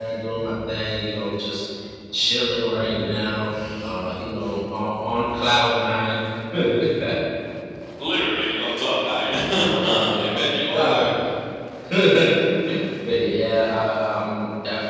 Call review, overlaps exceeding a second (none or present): present